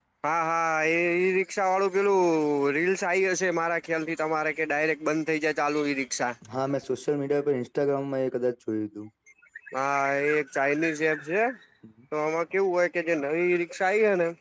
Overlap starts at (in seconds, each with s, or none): none